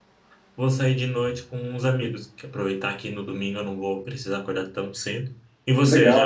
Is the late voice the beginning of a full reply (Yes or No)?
Yes